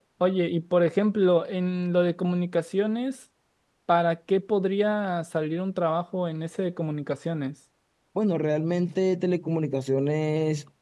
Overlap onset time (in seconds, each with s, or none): none